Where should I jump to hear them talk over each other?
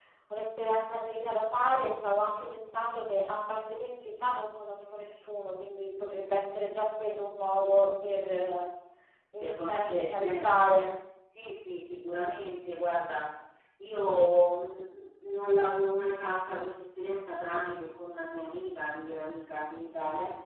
9 s

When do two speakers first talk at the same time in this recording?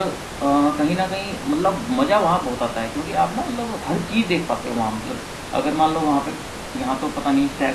none

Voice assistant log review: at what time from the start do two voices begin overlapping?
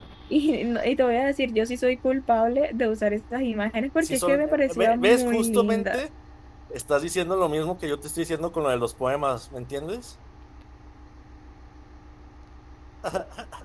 4 s

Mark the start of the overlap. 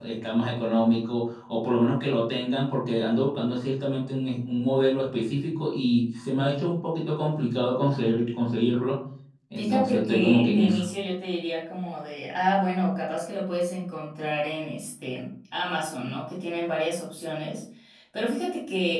10 s

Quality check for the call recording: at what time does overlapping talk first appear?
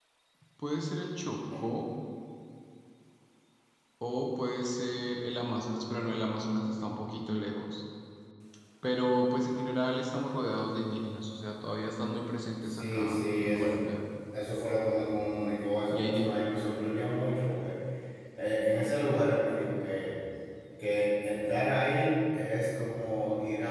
13 s

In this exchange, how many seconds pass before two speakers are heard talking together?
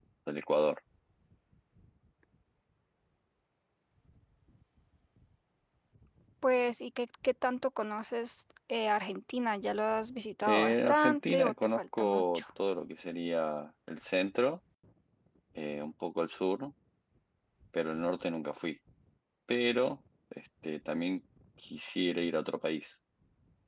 10 s

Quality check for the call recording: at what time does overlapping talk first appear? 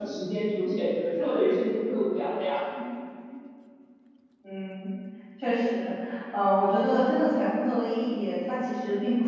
none

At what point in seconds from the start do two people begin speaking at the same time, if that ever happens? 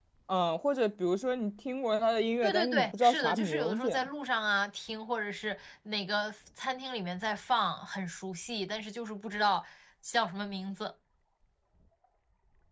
2 s

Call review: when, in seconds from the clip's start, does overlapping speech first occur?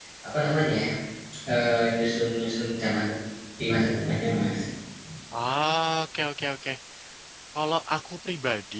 none

